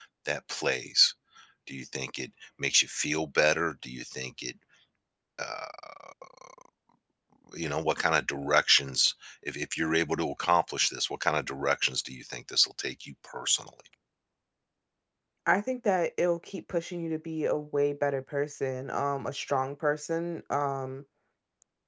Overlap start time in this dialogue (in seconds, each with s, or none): none